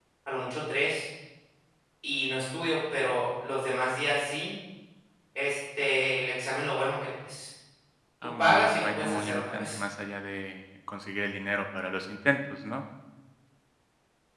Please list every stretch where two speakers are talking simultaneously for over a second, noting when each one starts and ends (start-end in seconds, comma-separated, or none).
8.4-9.8